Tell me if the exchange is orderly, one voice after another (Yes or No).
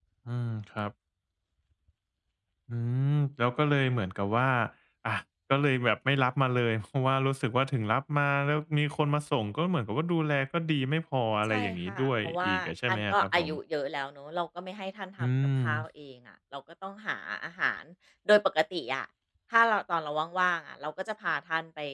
No